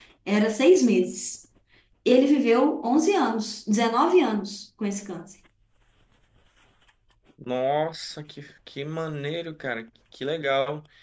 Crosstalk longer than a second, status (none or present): none